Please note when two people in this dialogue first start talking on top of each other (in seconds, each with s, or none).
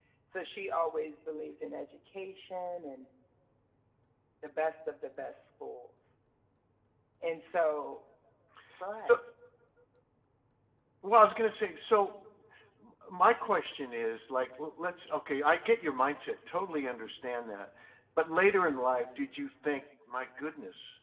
none